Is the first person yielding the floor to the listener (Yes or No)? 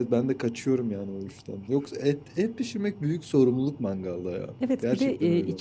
Yes